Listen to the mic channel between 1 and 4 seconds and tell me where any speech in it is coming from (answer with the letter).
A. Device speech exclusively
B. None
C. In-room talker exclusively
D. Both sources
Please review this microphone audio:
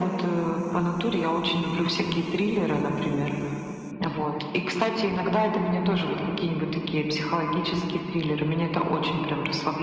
A